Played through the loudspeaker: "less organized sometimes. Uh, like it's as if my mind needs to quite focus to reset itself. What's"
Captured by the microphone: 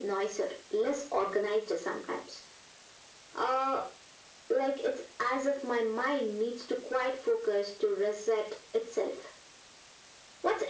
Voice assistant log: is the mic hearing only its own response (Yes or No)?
Yes